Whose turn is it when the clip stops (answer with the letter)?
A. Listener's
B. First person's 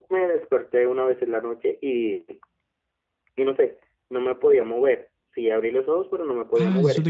A